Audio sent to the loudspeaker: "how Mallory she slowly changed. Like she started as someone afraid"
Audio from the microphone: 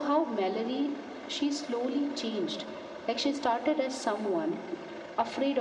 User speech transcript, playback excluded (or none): none